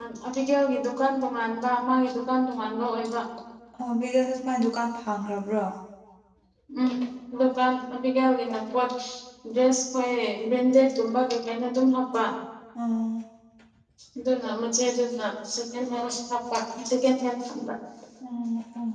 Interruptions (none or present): none